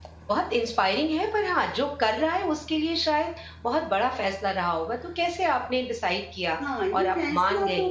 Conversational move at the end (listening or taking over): taking over